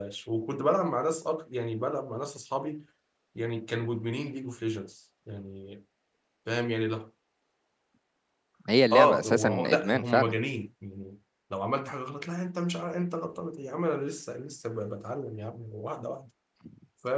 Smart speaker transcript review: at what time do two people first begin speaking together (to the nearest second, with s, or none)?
9 s